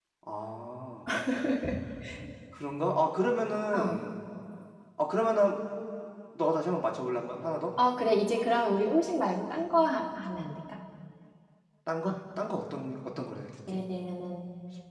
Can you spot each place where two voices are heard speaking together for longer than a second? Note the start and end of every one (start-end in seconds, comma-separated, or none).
none